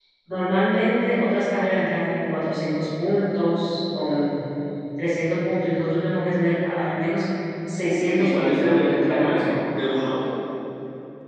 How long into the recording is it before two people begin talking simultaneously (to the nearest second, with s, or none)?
8 s